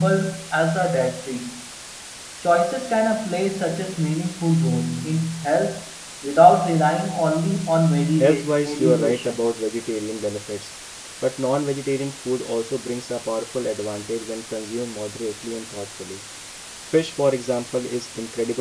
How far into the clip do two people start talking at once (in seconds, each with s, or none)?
8.2 s